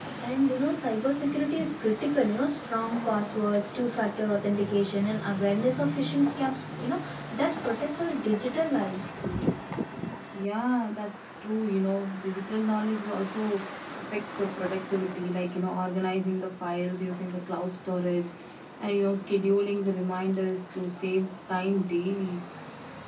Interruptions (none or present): none